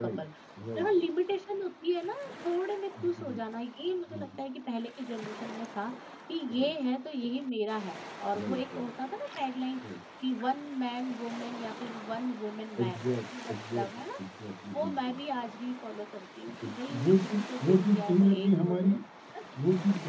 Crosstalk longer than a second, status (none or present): present